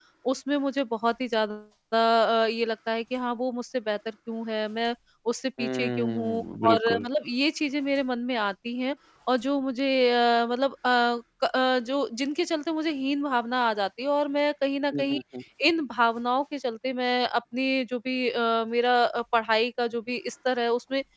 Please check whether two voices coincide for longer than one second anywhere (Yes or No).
Yes